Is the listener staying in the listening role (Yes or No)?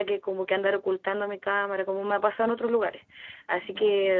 Yes